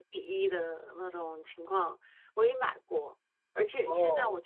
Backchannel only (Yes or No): Yes